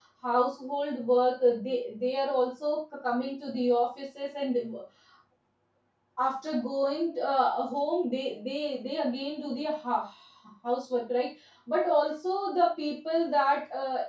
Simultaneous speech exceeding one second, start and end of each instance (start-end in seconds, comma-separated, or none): none